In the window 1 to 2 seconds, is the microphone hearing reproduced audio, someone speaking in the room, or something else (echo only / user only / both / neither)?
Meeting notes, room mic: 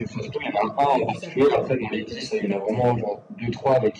both